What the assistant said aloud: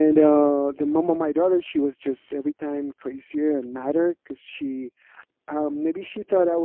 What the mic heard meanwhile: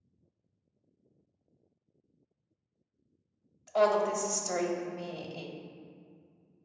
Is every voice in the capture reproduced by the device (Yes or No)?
No